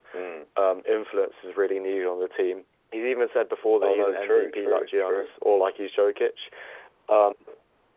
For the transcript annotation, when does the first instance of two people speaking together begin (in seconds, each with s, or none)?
3.8 s